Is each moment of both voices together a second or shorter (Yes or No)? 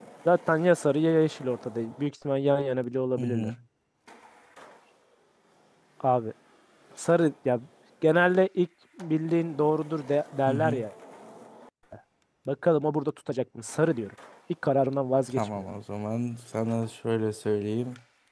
Yes